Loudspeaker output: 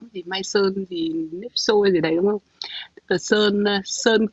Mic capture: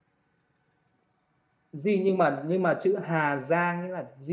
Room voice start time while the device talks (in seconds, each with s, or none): 1.7 s